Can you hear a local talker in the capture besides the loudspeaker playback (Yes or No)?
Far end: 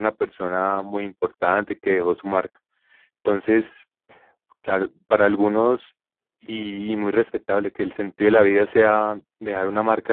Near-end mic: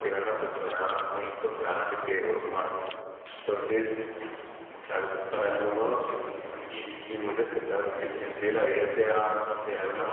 No